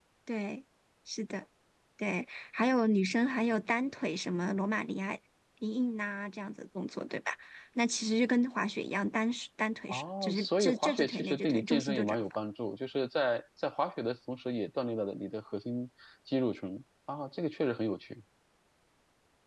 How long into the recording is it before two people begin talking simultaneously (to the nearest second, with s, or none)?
10 s